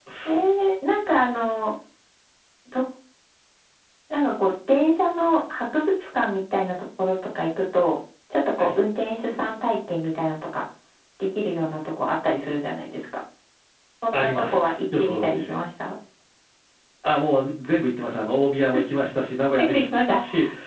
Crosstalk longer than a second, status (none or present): present